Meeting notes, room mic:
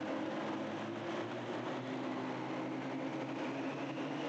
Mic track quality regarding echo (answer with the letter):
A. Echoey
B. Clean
B